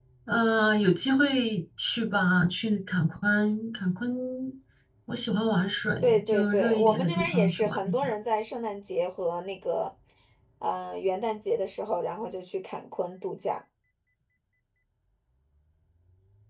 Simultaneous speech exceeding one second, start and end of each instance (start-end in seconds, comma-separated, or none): 6.0-8.1